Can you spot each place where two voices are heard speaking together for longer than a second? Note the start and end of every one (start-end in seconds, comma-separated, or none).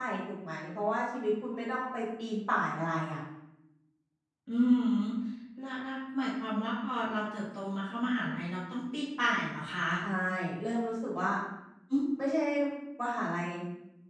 none